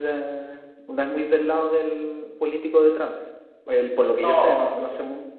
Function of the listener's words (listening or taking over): taking over